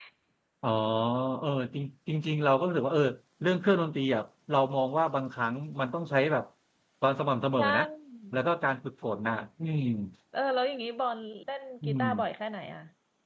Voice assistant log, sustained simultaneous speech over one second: none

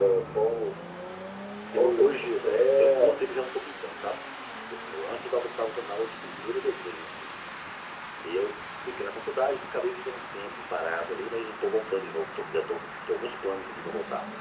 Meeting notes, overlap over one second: present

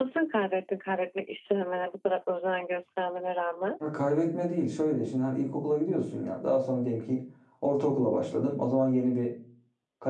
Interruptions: none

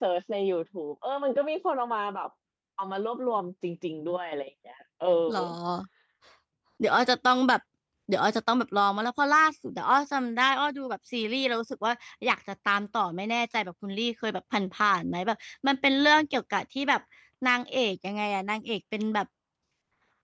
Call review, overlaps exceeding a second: none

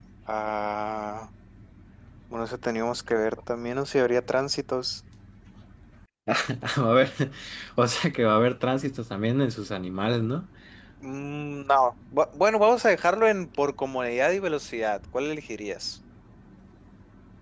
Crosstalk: none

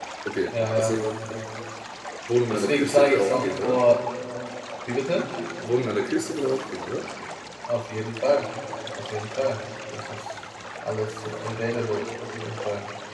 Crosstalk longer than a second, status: present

